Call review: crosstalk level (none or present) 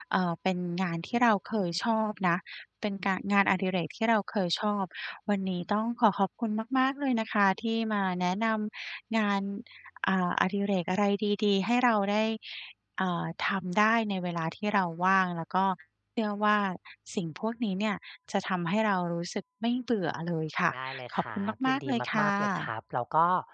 present